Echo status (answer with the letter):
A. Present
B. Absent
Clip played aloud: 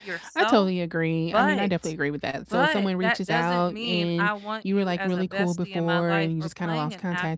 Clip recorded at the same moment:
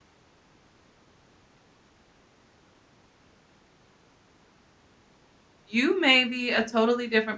B